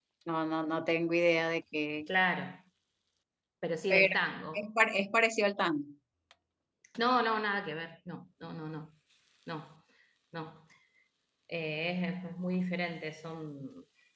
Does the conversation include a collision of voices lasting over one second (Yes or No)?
No